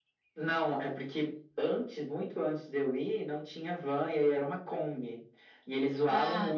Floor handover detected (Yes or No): No